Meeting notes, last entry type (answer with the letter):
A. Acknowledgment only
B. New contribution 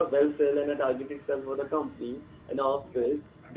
A